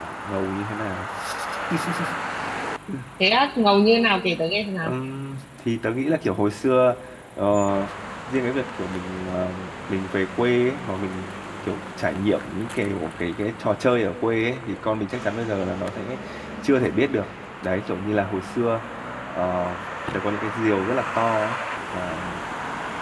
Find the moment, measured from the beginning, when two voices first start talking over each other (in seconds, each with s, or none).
none